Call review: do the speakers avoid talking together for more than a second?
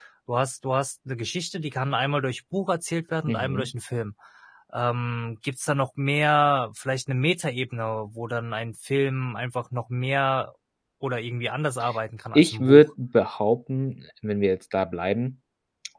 Yes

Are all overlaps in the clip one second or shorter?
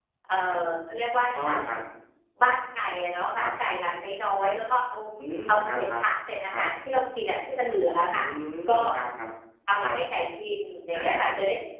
Yes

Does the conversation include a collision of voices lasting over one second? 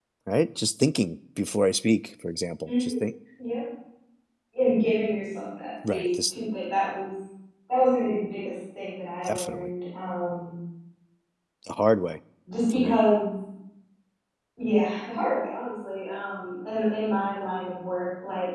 No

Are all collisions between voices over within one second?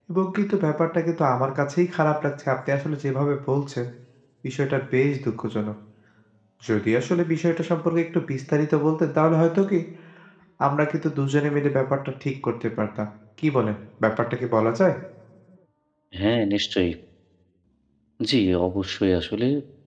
Yes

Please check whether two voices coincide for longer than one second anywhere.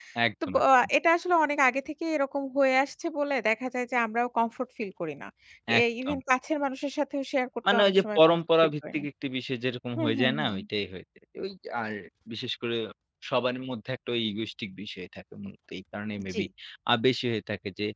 Yes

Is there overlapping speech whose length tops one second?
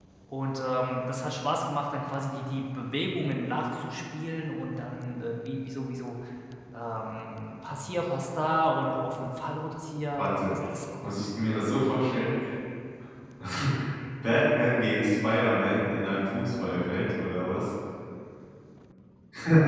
No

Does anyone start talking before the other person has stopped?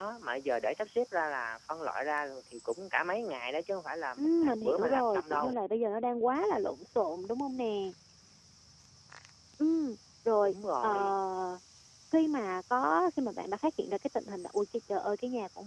Yes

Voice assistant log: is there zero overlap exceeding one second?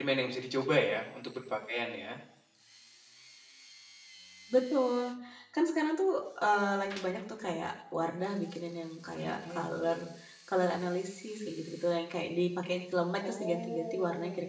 No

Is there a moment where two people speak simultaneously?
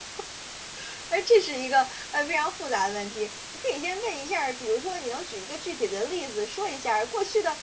No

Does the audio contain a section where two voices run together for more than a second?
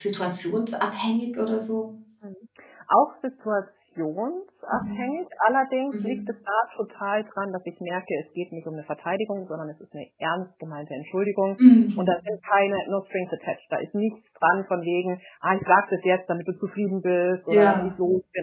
No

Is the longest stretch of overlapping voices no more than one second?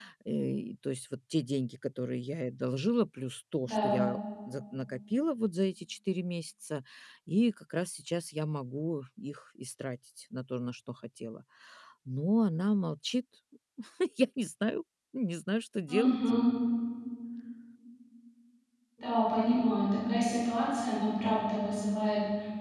Yes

